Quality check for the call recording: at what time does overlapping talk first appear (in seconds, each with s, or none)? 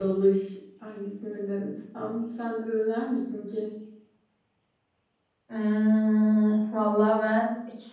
none